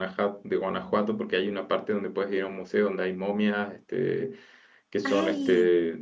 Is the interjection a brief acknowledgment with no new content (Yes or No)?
Yes